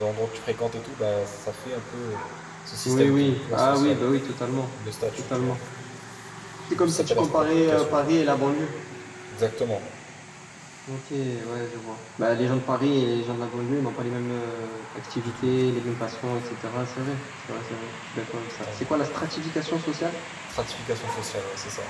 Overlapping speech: Yes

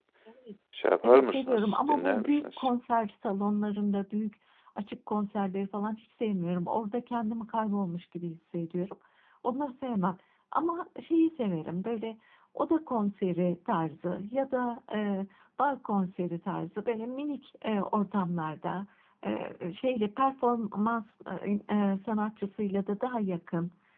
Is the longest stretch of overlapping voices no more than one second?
No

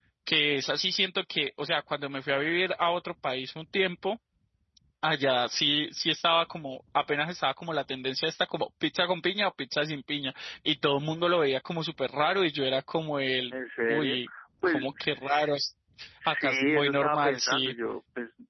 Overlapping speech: Yes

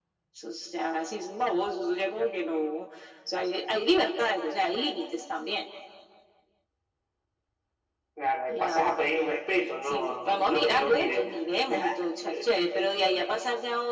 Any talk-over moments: Yes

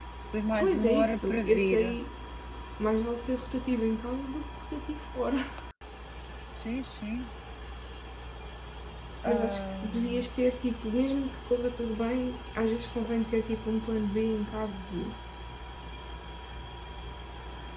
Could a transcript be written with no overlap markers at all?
No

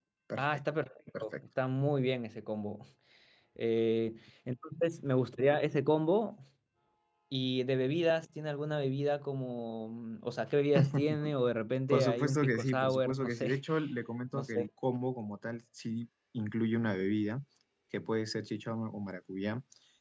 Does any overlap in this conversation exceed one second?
Yes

